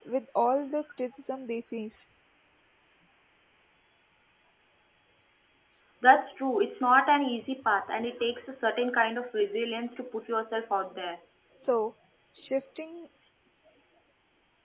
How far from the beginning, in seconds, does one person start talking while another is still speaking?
none

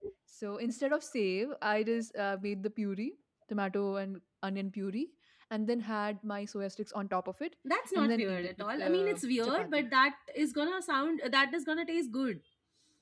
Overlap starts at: 8.0 s

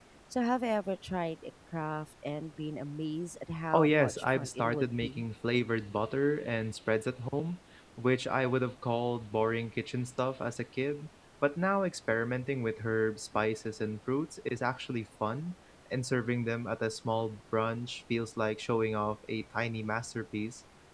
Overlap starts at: 3.7 s

